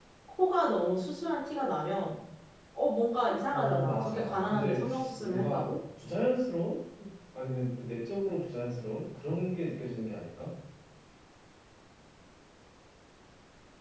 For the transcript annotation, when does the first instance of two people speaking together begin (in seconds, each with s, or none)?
3.5 s